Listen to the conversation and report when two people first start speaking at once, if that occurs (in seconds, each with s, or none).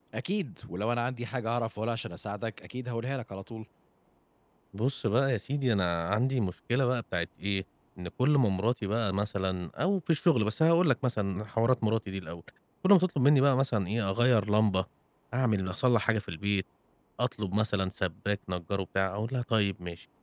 none